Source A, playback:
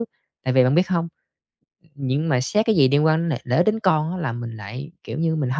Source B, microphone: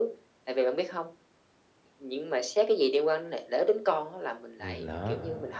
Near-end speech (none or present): present